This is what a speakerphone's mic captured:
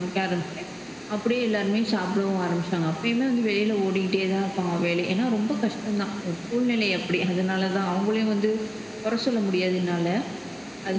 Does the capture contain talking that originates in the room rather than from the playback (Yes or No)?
No